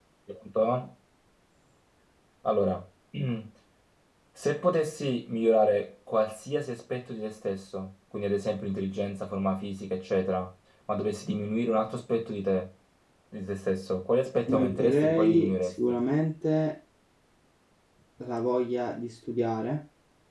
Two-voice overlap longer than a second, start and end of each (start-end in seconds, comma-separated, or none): 14.5-16.0